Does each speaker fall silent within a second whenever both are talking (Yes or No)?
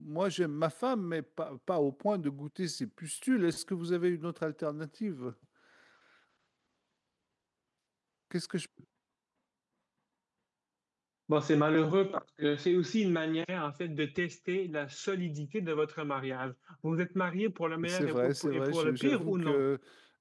No